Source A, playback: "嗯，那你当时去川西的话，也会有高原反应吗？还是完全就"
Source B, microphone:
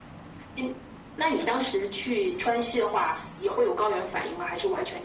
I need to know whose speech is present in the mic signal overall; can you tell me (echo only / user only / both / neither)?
echo only